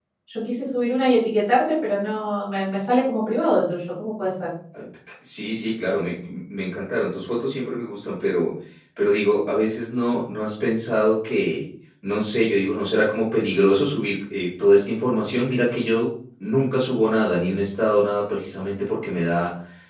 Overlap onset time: none

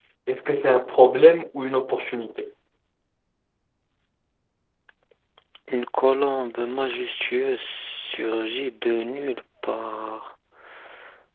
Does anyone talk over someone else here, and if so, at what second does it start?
none

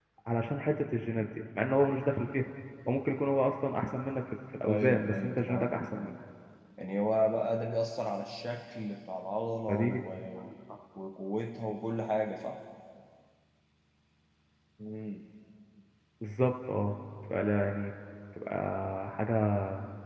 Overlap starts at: 4.7 s

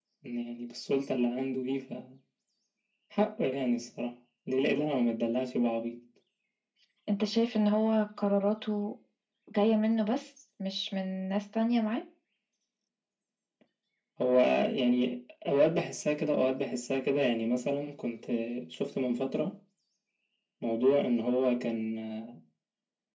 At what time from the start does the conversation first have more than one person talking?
none

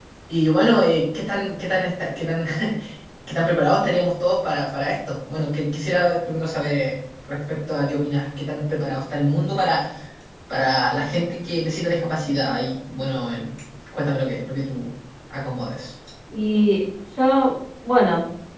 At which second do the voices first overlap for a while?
none

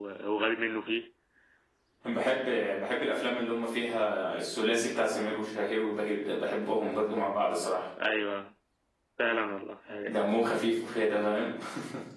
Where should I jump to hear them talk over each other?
none

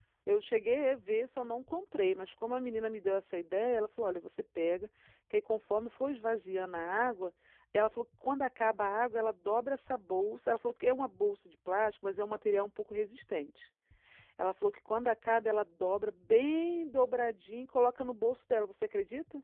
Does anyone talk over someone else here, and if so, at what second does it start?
none

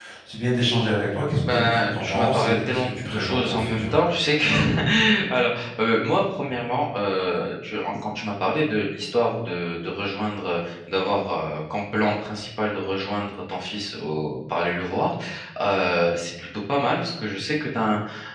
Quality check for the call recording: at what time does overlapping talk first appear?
1.4 s

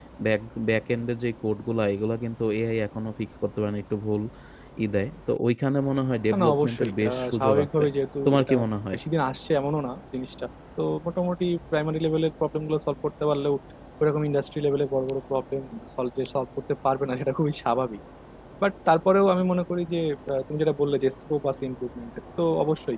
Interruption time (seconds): 6.3 s

